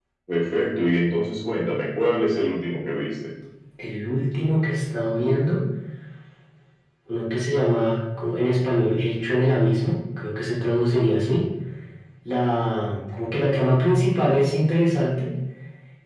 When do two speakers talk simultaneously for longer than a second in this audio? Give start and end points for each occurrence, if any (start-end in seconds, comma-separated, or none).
none